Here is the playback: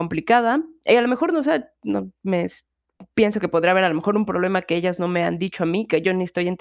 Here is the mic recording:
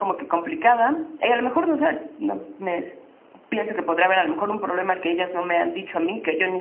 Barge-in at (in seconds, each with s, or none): none